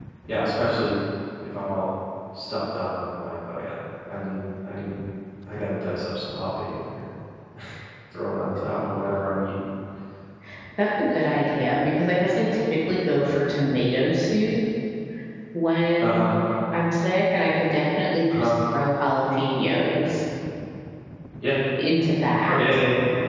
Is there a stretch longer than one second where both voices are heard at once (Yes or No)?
No